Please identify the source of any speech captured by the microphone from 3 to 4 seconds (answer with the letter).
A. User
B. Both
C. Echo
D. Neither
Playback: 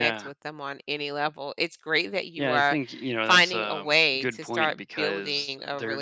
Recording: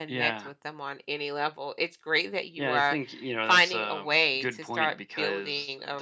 C